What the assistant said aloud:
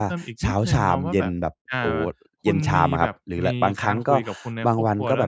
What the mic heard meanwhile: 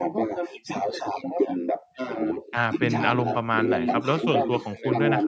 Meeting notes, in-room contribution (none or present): present